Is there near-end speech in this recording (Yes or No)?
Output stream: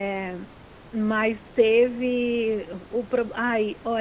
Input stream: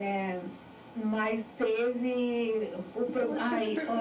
Yes